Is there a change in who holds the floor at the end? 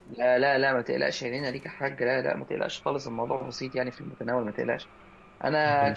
No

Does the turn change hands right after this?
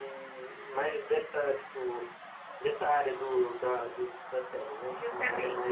Yes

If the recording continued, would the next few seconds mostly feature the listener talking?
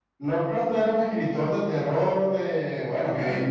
No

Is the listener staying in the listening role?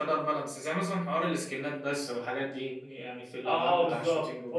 No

